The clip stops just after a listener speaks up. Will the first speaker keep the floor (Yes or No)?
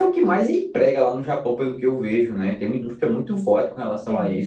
No